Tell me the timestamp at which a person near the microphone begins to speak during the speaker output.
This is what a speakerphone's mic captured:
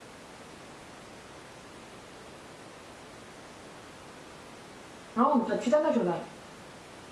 5 s

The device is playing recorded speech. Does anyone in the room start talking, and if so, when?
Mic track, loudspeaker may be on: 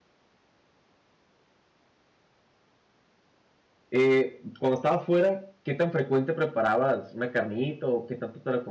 4 s

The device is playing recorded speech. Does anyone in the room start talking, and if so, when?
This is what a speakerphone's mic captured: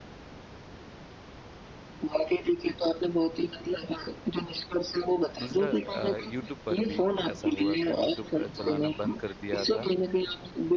5 s

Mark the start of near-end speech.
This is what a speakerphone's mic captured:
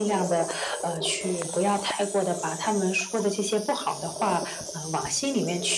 none

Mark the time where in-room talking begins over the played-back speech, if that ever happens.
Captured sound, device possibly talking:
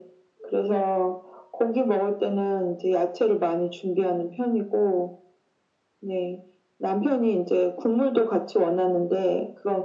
none

